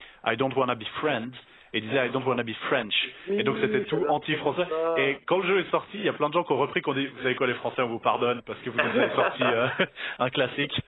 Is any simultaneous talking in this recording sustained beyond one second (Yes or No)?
Yes